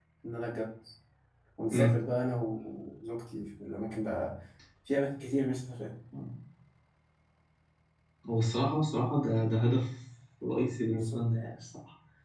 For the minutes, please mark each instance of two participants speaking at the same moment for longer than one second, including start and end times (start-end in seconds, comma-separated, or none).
none